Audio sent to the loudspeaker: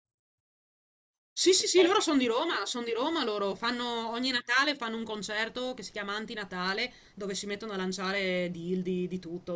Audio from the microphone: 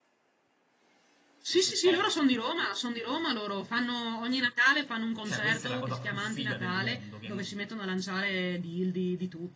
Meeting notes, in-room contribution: present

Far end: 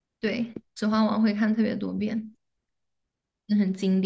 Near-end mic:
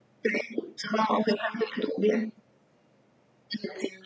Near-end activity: none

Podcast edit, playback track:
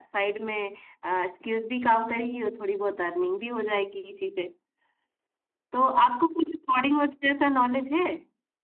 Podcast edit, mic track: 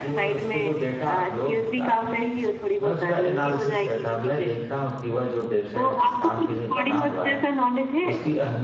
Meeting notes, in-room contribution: present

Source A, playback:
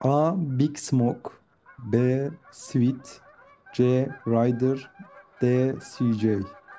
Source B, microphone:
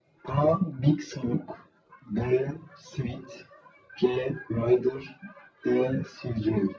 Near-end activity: none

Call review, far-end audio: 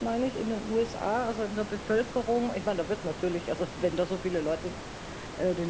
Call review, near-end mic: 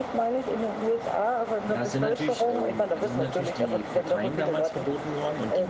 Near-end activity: present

